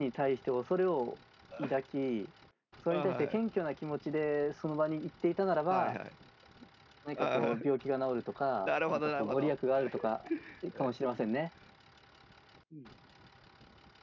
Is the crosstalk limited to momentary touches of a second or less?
No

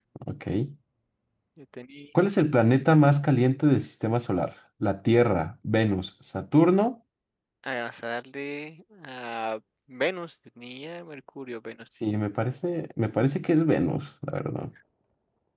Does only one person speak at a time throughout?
Yes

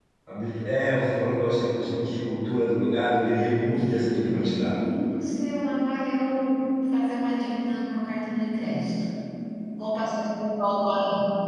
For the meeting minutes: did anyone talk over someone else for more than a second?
Yes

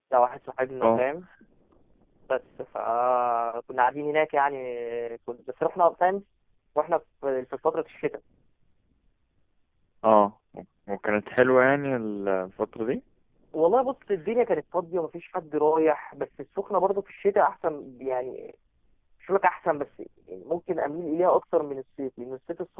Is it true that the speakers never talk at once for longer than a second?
Yes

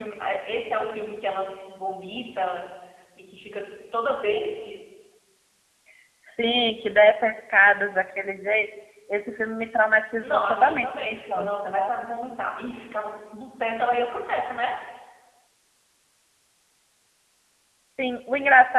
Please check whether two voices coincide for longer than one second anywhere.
Yes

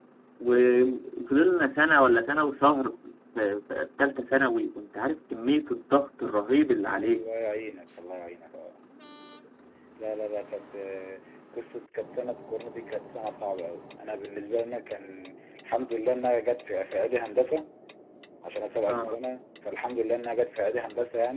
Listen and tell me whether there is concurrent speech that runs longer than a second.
No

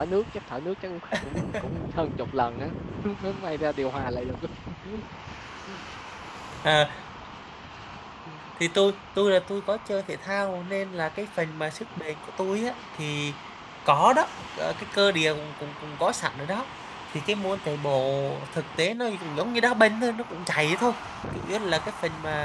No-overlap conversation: Yes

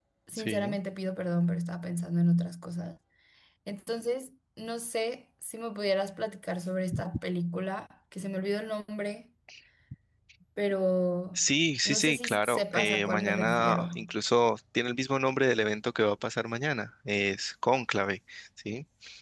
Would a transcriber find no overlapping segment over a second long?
No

